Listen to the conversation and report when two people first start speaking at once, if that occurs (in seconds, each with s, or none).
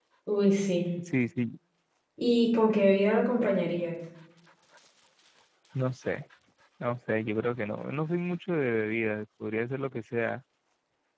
none